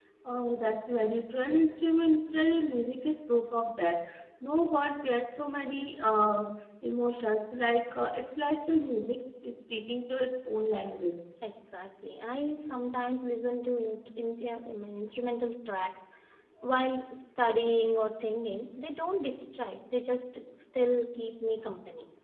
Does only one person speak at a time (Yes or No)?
Yes